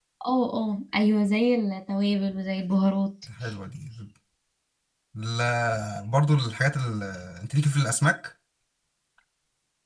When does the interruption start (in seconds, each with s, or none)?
none